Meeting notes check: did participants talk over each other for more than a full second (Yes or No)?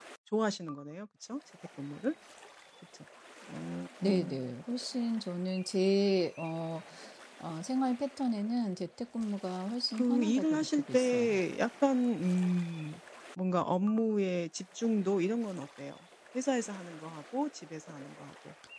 Yes